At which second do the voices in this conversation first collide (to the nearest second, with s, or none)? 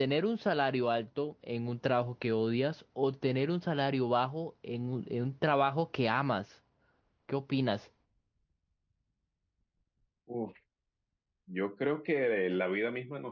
none